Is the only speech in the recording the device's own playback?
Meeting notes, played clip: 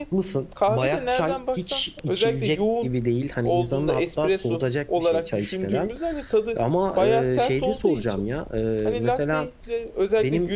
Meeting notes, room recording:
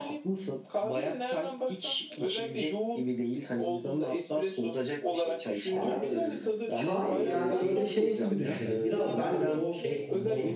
No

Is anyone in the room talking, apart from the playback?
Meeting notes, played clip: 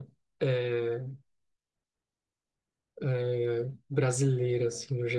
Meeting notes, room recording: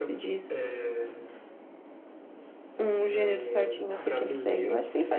Yes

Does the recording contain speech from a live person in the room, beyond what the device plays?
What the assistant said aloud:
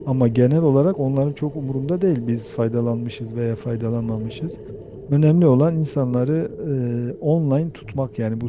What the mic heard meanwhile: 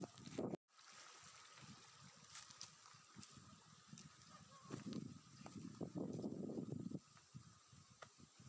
No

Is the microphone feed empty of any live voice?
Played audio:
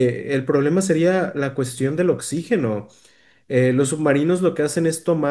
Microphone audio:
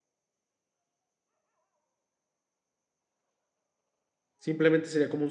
No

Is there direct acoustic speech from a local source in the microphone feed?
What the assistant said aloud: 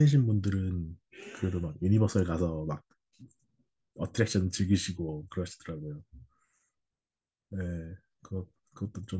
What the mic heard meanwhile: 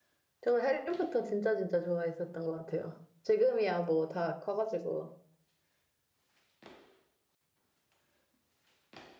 Yes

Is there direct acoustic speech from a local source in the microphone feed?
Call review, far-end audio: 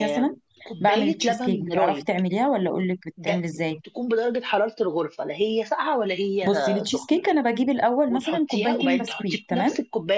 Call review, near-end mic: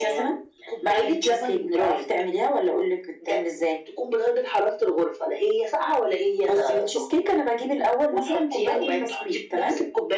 No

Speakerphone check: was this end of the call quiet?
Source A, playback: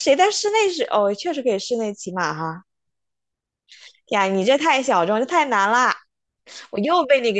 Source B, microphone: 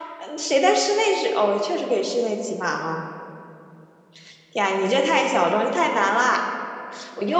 Yes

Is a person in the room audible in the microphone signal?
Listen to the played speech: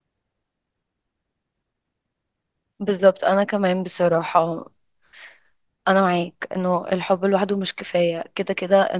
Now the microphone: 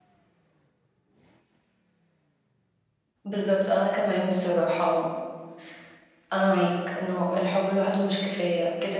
No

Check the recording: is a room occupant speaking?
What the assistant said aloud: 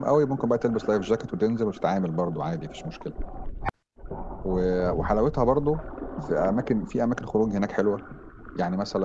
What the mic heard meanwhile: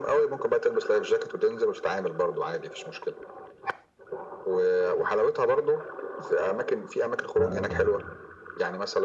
Yes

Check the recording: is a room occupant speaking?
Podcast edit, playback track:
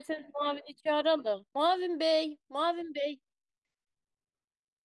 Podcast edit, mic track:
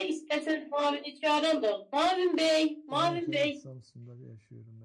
Yes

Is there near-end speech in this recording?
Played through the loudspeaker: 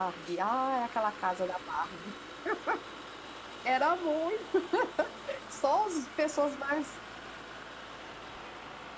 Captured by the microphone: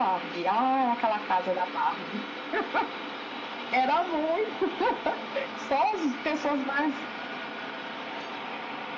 No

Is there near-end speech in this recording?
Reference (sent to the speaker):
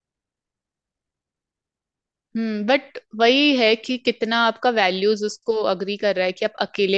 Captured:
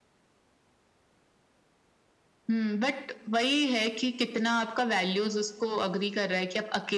No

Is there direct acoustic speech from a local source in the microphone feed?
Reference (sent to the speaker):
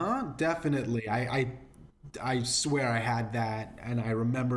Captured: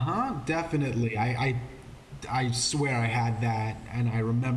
No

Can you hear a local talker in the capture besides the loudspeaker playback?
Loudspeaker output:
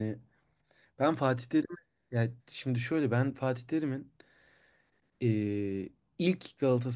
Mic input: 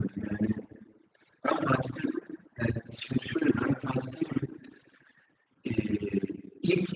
No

